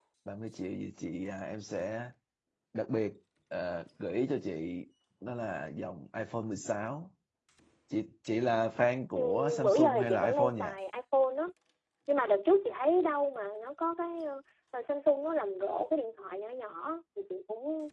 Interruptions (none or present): present